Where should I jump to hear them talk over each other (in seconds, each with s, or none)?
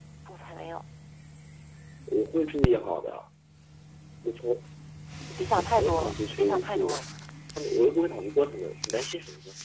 5.6 s